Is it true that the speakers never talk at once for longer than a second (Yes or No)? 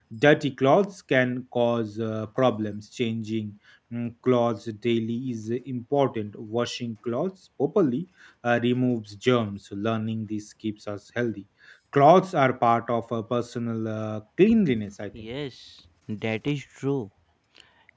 Yes